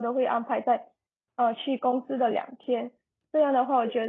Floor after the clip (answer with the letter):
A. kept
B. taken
A